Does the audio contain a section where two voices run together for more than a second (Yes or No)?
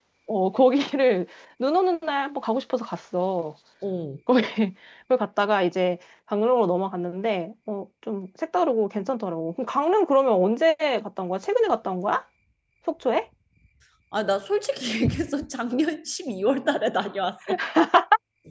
No